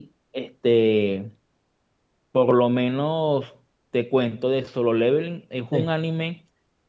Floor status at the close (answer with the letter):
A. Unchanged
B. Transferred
A